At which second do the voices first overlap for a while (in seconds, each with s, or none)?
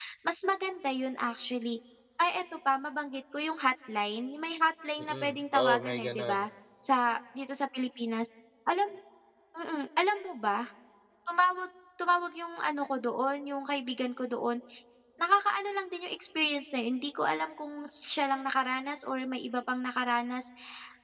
5.0 s